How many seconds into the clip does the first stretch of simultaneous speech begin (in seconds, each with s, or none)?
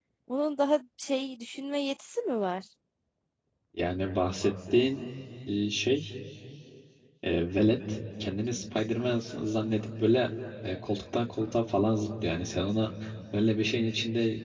none